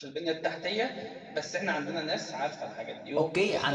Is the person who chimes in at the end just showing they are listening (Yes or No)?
No